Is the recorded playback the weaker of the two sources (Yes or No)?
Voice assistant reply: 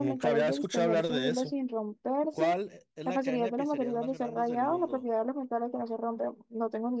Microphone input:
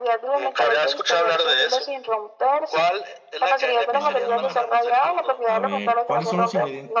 No